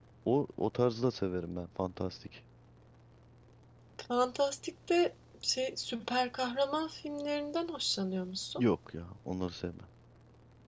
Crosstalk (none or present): none